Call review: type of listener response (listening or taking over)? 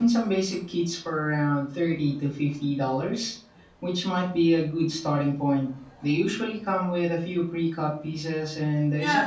taking over